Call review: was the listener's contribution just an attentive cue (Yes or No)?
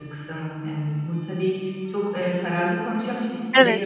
Yes